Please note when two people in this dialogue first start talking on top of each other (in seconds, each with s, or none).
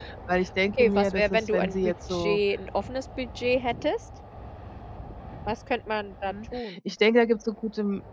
0.8 s